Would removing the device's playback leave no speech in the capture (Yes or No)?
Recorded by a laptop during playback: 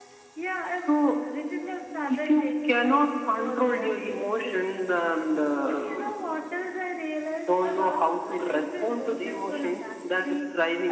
Yes